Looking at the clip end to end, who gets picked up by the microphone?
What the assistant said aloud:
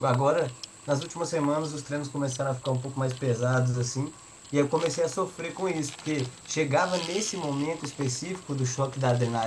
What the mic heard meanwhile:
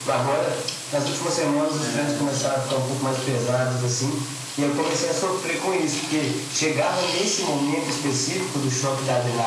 both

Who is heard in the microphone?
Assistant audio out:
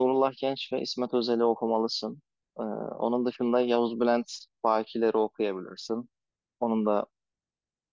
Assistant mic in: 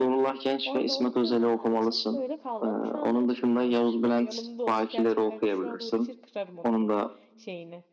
both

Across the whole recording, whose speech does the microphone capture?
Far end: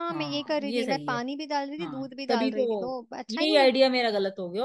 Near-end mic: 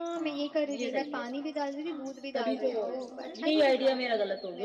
both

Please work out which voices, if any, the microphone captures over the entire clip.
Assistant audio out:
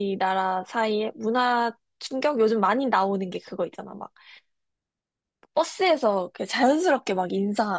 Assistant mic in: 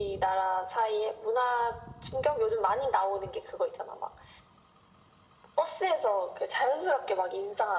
echo only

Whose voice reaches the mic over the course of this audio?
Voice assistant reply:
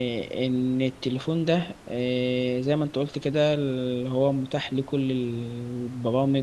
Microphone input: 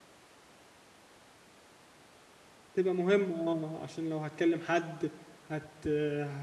user only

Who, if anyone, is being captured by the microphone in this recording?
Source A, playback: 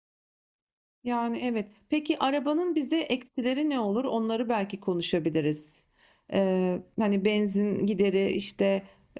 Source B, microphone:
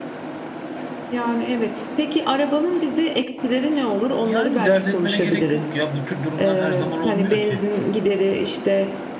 both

